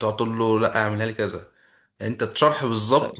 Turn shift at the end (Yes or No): No